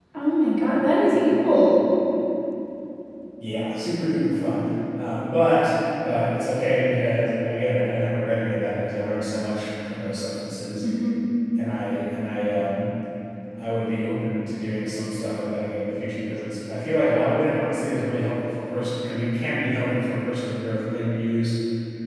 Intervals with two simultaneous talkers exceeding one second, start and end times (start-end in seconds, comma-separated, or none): none